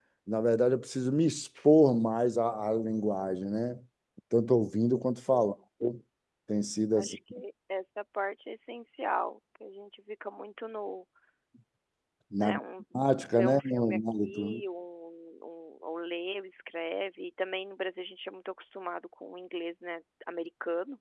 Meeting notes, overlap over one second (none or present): present